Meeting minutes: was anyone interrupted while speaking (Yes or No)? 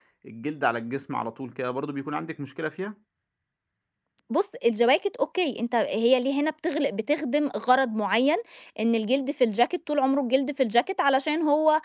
No